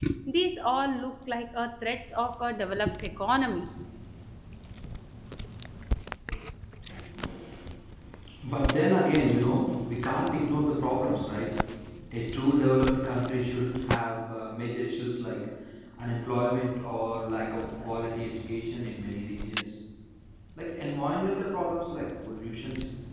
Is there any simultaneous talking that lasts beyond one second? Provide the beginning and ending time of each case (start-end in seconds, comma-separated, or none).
none